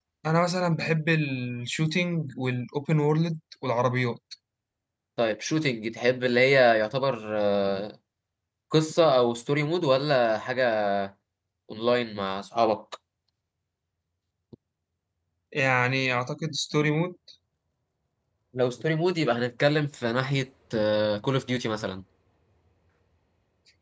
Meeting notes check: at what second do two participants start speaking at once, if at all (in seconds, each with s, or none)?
none